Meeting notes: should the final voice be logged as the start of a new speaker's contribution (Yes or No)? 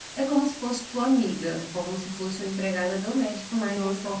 Yes